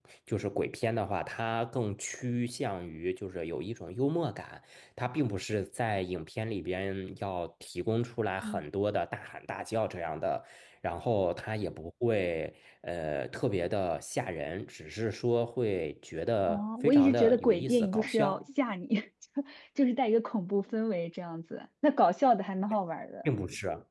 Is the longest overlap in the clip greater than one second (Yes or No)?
Yes